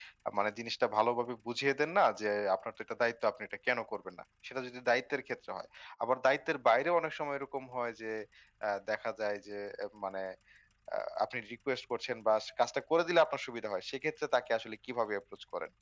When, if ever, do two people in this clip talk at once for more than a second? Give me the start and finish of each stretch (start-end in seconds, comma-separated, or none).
none